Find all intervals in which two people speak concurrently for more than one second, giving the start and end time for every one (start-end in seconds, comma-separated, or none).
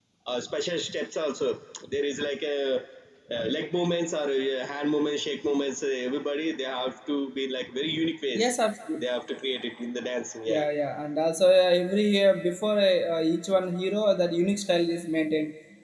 none